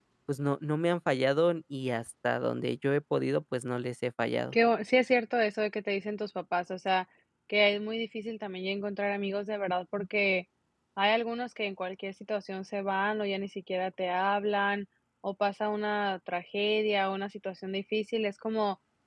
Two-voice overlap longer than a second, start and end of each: none

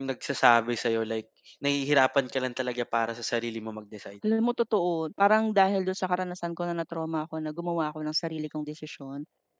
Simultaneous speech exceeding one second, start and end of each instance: none

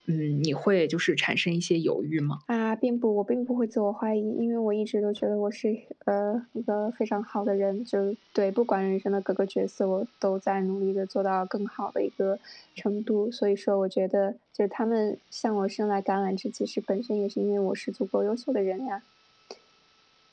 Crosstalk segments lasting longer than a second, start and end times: none

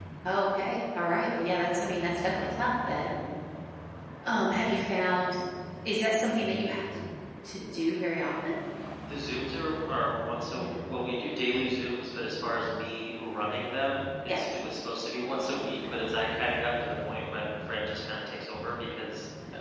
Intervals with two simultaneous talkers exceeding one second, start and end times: none

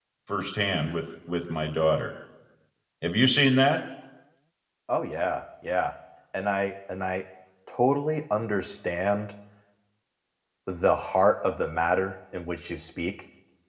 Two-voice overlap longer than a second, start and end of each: none

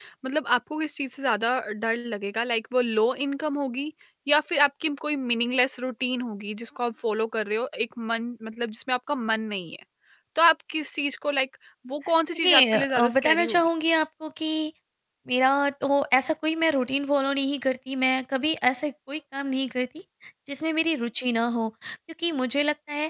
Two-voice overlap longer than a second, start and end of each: 12.3-13.7

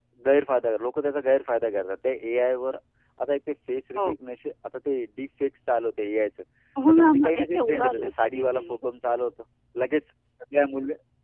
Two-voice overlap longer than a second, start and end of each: 6.9-8.6

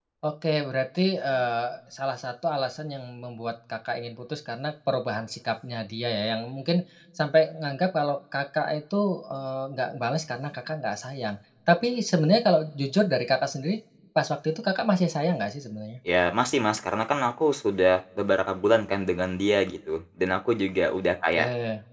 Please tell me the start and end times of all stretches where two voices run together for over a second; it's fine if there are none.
none

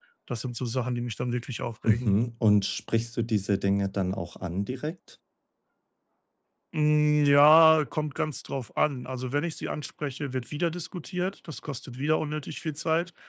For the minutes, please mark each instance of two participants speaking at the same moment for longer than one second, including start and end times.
none

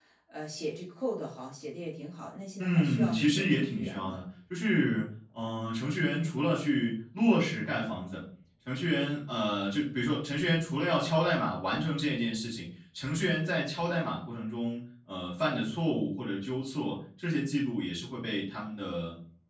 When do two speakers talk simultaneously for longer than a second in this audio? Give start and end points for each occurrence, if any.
2.6-4.2

